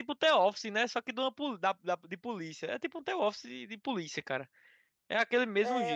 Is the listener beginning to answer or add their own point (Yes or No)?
Yes